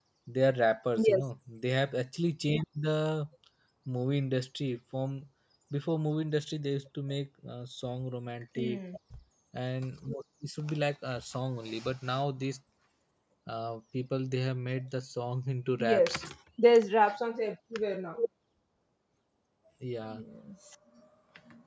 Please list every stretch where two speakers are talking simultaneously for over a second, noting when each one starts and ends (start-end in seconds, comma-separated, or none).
none